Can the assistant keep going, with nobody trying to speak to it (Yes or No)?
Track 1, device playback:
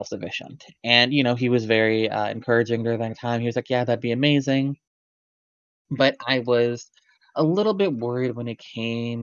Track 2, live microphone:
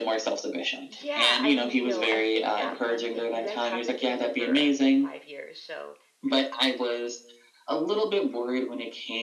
No